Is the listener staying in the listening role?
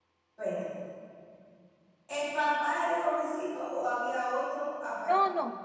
No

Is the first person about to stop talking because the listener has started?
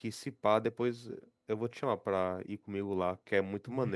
Yes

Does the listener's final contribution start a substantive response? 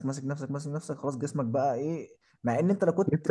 No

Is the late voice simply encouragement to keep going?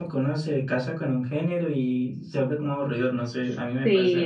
No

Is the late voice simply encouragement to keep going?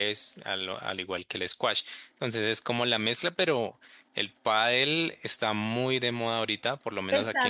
No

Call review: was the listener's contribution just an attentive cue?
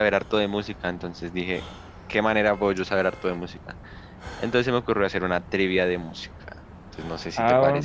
No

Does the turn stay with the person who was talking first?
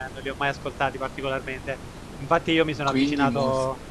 Yes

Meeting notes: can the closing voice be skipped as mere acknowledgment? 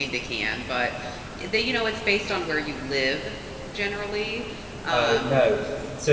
No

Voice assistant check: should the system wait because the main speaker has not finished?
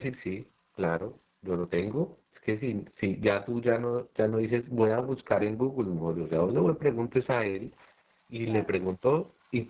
Yes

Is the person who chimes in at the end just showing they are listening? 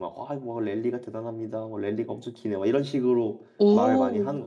No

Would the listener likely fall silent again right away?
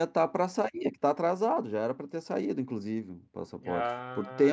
No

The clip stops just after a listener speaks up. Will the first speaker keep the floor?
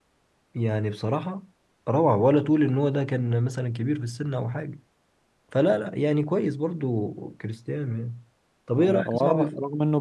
No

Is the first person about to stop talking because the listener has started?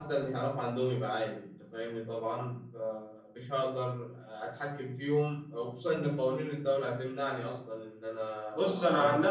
Yes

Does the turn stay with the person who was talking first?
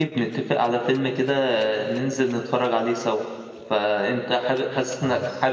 Yes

